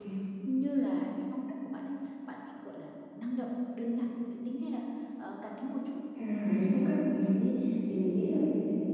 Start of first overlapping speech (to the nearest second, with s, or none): none